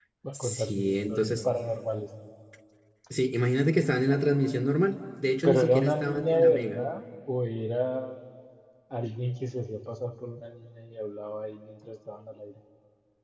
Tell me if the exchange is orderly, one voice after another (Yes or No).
No